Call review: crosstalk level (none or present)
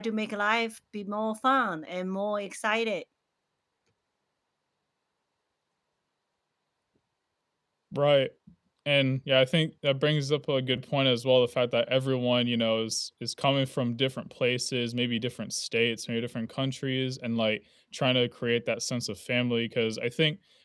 none